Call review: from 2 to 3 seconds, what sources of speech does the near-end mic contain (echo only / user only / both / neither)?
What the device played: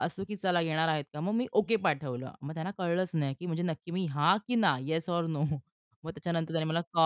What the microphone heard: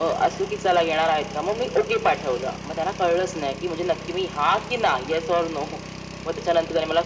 echo only